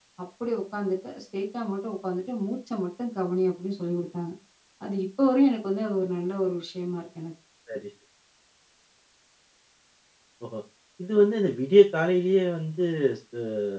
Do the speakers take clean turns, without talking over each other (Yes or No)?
Yes